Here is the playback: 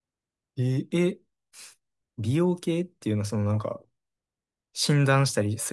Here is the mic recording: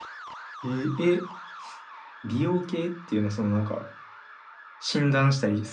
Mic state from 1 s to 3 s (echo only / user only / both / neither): echo only